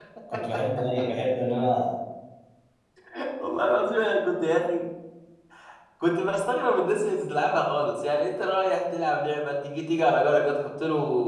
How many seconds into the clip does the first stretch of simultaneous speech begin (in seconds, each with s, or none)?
none